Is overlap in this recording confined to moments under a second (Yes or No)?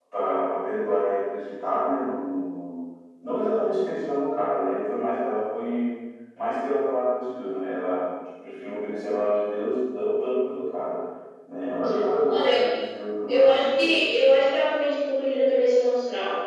No